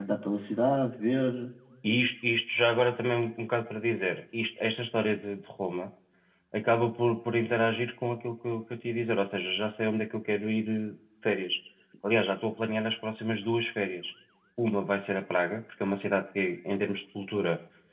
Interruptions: none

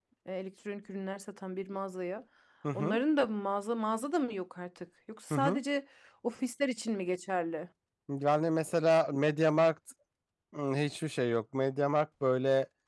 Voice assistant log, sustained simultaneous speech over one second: none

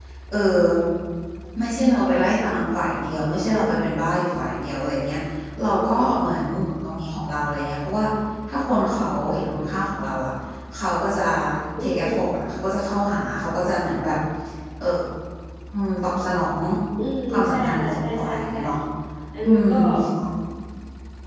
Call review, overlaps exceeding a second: present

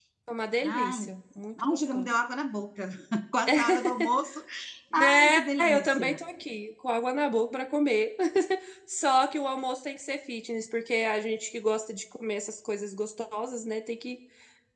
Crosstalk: present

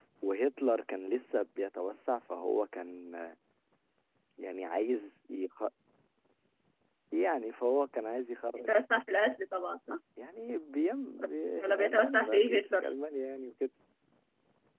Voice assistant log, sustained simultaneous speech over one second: present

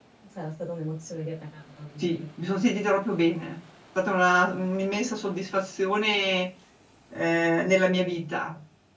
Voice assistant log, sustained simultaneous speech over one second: none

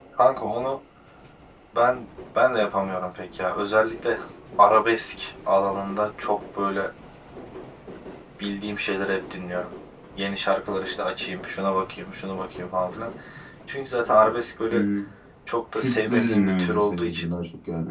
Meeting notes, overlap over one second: present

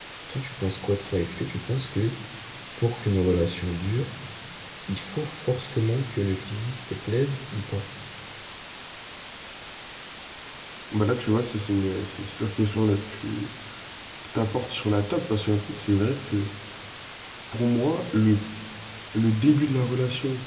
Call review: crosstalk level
none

